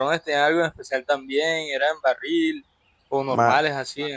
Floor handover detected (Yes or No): Yes